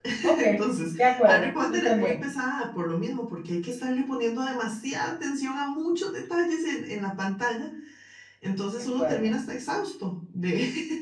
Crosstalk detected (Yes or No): Yes